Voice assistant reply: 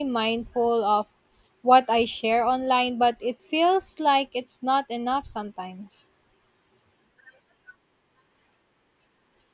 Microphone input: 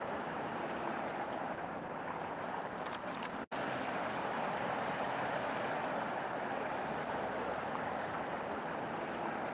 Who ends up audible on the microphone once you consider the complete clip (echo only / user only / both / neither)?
neither